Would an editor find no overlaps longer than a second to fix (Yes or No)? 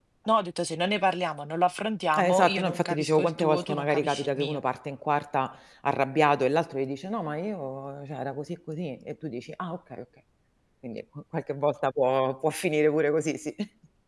No